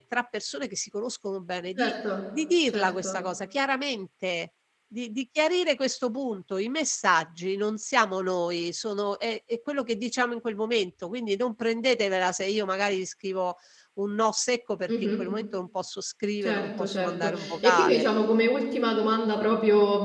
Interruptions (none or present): present